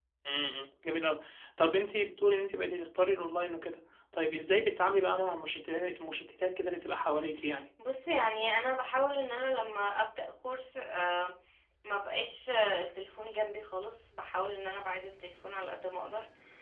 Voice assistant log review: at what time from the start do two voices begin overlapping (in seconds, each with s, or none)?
none